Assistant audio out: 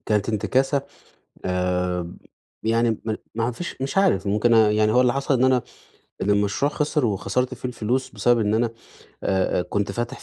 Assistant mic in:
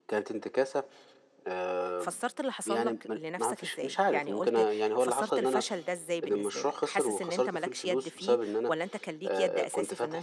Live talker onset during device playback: 2.0 s

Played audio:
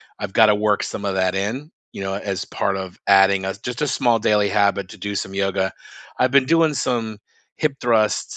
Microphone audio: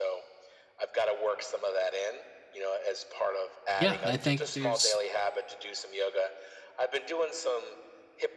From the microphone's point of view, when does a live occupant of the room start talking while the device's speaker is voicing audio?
3.7 s

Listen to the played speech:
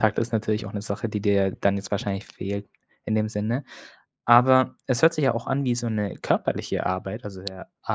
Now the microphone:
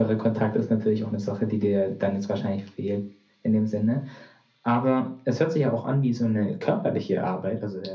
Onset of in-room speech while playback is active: none

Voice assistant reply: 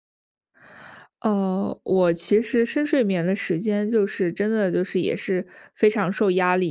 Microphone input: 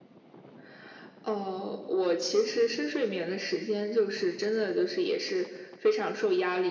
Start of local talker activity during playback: none

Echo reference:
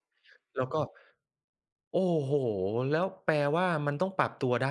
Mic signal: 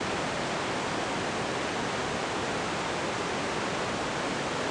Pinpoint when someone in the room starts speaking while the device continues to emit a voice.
none

